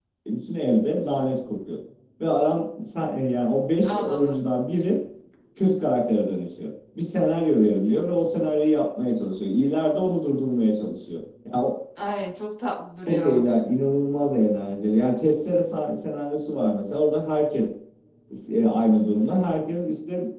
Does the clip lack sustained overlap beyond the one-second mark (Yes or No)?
Yes